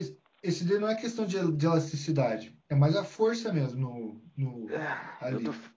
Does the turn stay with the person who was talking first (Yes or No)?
No